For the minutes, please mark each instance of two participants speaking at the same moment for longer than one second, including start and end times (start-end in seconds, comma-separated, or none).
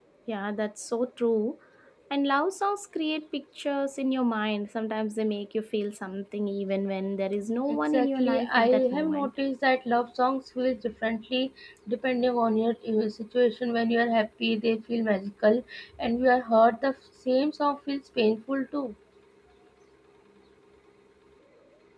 7.7-9.3